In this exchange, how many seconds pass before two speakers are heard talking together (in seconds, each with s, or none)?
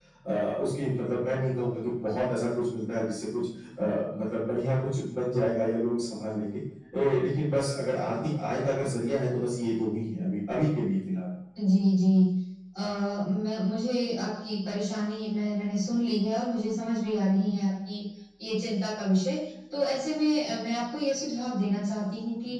none